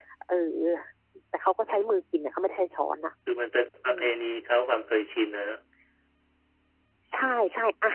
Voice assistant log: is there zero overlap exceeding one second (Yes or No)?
Yes